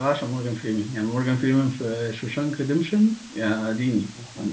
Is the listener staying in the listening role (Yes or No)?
No